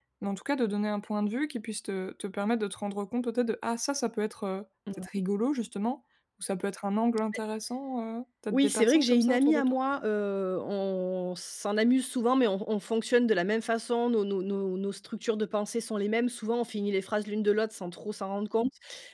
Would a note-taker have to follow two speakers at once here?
Yes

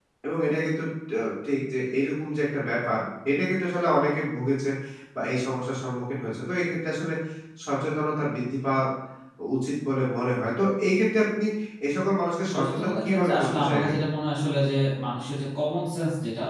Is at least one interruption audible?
Yes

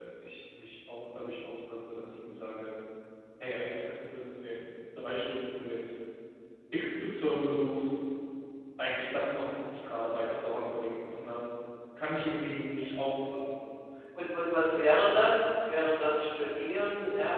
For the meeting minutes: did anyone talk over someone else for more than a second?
No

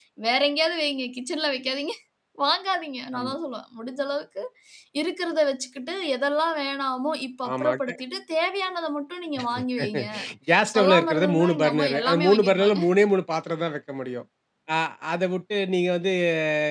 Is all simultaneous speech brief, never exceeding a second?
No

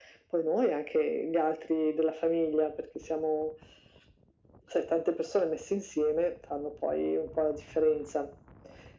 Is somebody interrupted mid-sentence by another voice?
No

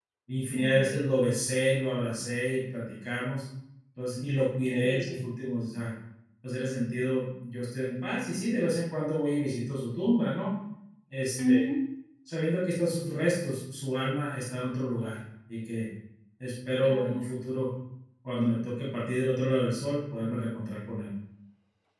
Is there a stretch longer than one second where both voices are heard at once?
No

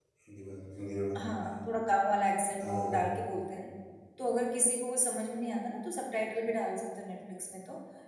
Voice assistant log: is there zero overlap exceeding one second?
Yes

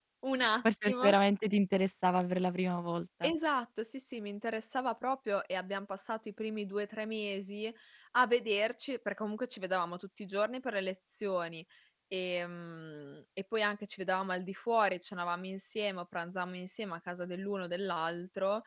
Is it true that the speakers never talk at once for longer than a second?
Yes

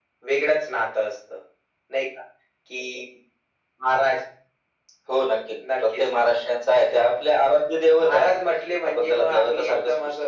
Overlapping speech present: Yes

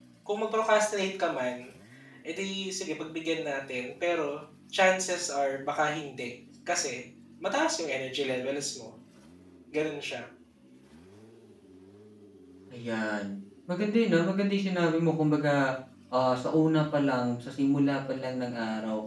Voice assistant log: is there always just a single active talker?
Yes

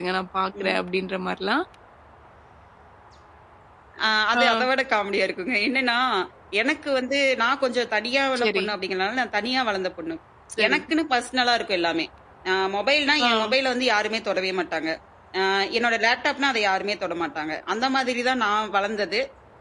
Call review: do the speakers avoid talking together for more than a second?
Yes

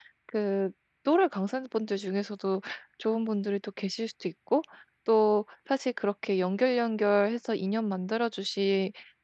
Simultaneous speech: No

